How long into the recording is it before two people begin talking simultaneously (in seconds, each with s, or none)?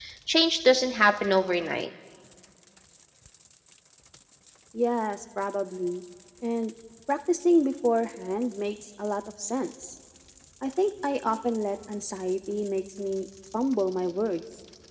none